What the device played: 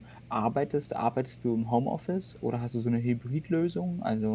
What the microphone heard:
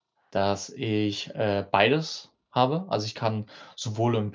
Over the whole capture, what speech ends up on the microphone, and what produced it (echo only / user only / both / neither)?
user only